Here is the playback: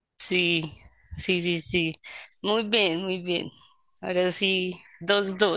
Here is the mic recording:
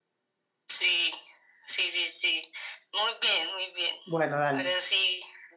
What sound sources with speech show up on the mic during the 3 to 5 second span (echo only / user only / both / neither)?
both